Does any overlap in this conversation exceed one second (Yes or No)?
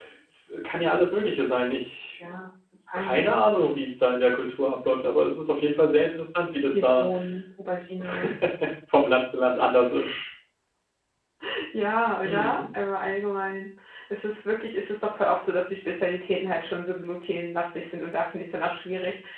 No